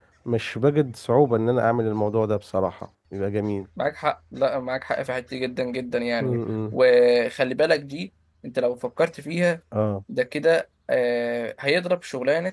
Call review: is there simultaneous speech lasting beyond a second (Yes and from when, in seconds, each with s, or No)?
No